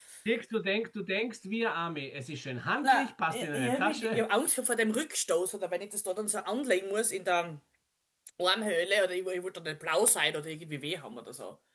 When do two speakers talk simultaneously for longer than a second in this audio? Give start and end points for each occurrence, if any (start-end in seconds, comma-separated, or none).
2.8-4.2